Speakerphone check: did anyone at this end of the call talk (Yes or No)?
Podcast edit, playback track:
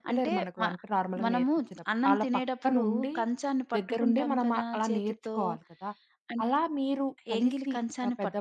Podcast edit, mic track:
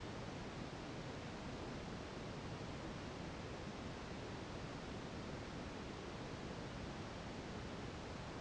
No